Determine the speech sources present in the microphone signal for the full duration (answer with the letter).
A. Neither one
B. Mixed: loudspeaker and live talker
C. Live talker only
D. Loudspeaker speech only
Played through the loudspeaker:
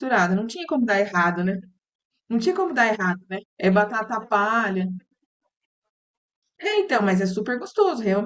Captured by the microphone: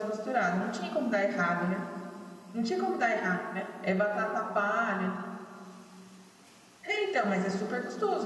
D